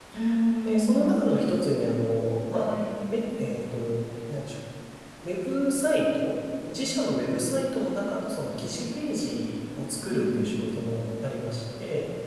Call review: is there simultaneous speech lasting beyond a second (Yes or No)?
No